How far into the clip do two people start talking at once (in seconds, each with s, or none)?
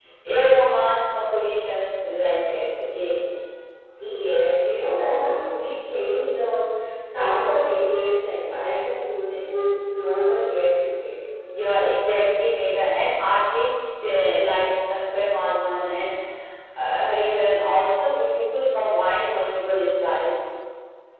none